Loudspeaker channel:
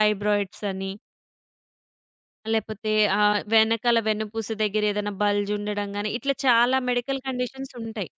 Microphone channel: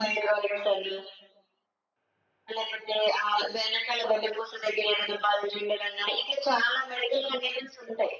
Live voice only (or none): none